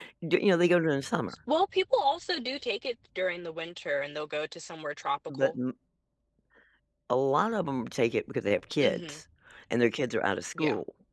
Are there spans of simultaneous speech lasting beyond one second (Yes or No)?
No